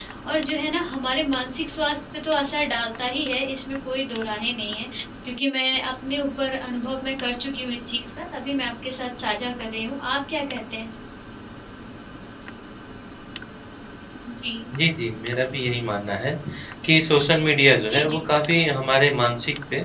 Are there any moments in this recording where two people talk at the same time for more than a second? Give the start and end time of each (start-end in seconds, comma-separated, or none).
none